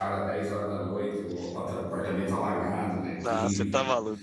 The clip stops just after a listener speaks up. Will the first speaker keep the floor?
No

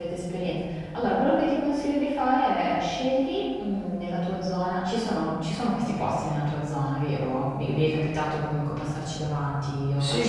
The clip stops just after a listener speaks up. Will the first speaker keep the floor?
No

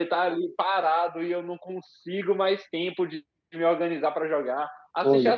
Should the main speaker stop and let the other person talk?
No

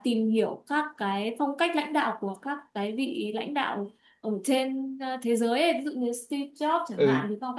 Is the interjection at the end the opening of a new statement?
No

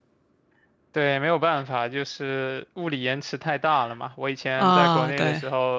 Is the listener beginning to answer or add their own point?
No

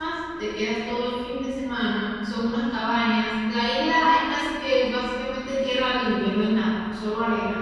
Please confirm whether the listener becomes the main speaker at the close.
No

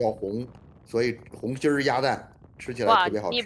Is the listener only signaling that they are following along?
No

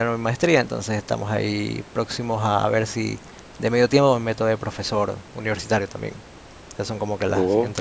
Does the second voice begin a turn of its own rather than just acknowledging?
No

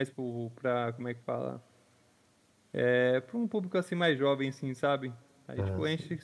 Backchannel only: Yes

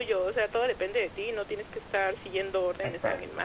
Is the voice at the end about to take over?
Yes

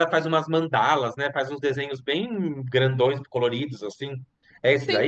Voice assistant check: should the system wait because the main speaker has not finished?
No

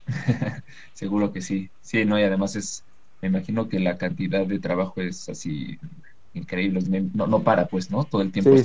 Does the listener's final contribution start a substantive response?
Yes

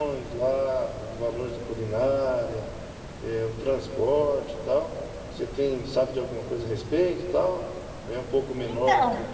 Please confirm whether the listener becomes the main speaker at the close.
No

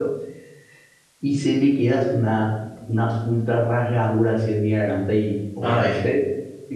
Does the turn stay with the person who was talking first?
Yes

